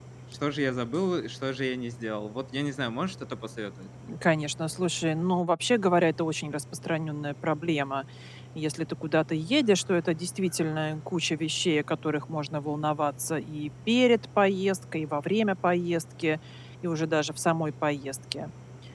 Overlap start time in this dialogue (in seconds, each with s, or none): none